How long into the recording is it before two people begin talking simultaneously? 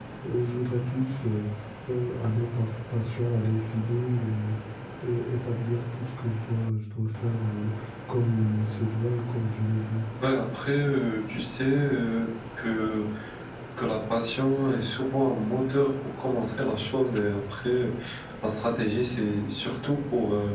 none

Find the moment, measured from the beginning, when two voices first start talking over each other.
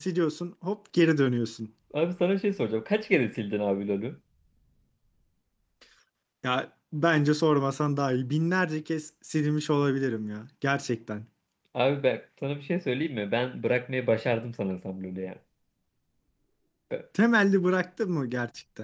none

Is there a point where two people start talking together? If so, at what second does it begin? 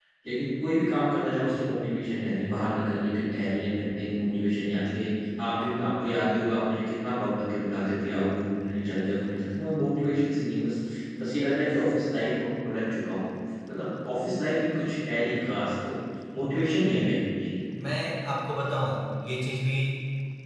none

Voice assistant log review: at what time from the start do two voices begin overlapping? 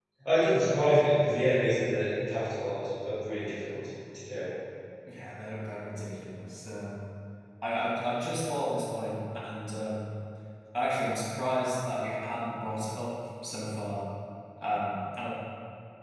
none

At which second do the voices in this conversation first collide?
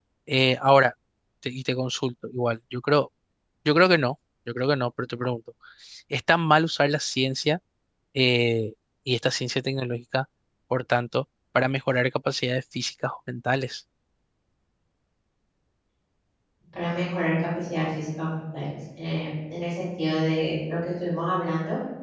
none

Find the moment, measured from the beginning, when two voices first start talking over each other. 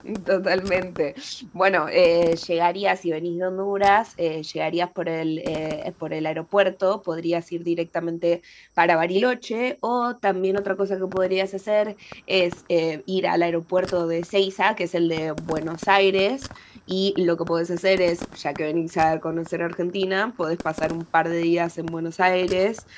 none

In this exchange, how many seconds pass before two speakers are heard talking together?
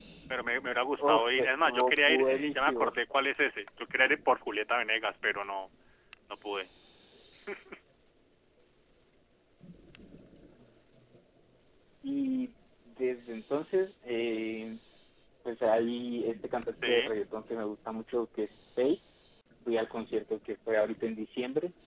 1.1 s

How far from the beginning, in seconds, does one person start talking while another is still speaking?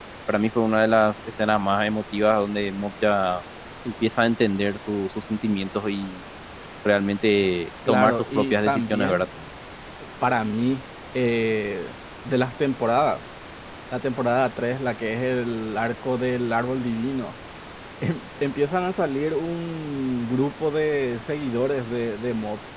7.9 s

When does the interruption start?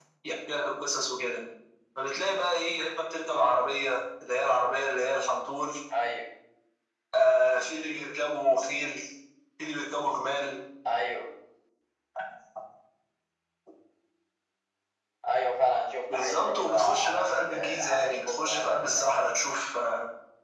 16.1 s

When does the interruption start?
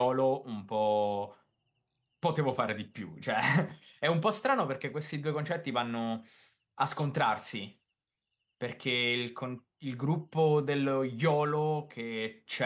none

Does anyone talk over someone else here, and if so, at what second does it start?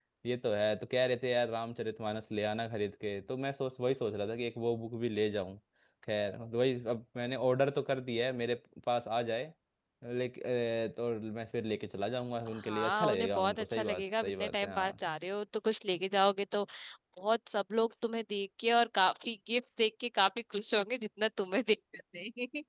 12.5 s

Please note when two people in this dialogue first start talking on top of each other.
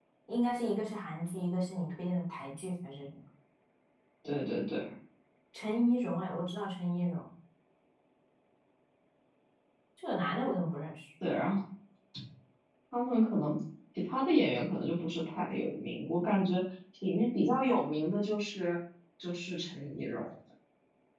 none

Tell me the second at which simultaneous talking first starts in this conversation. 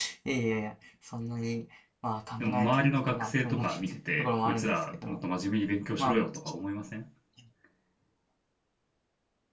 2.4 s

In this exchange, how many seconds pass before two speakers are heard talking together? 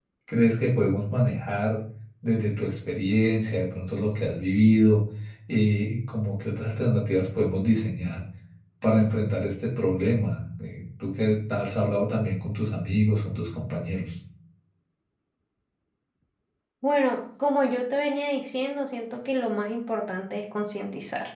none

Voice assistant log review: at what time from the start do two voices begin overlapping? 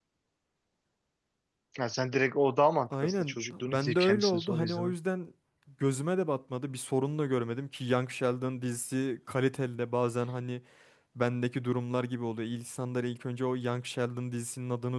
2.9 s

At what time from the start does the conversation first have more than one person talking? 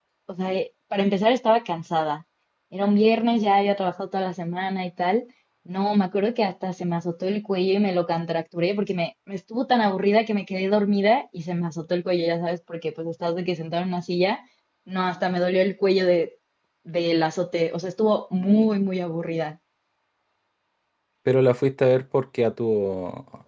none

